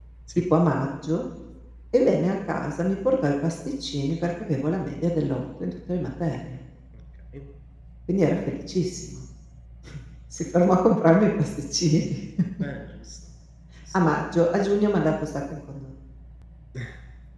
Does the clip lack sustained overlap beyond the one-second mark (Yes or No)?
Yes